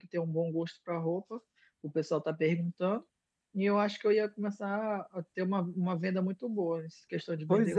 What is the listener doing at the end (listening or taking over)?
taking over